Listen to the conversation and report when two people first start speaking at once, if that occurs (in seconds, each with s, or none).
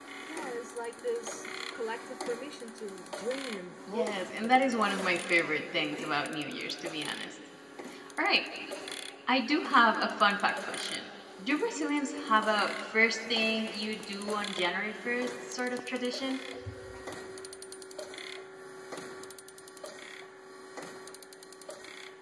3.9 s